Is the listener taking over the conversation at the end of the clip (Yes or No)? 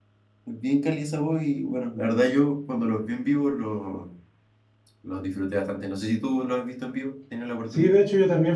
Yes